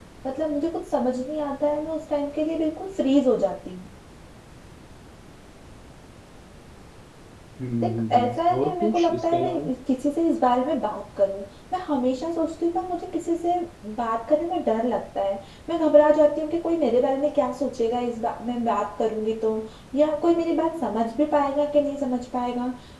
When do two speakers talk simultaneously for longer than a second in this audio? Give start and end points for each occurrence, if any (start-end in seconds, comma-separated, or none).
7.8-9.7